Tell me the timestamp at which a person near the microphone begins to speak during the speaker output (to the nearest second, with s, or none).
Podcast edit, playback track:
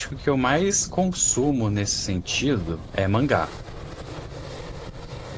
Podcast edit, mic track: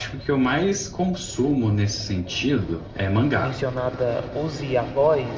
3 s